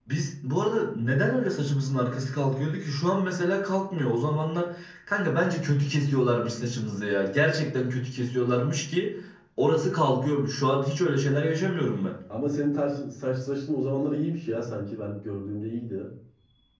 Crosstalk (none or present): none